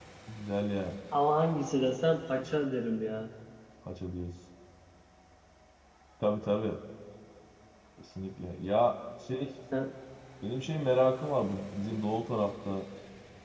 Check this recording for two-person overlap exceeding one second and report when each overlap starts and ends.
none

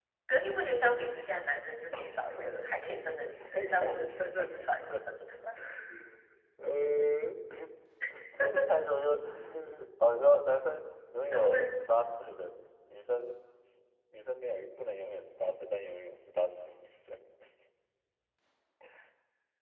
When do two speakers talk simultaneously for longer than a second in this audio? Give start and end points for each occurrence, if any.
3.5-5.0

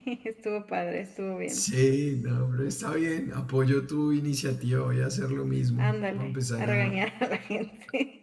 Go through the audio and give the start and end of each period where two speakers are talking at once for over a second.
5.8-7.0

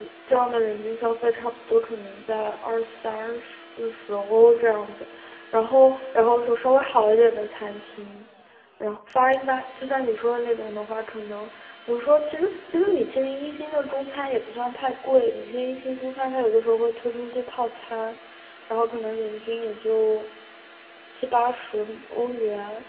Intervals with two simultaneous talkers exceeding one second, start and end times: none

